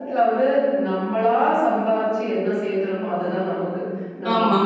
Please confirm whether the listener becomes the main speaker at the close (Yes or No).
No